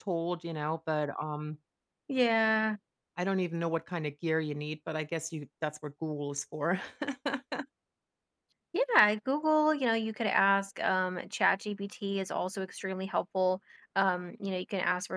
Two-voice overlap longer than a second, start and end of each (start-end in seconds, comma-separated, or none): none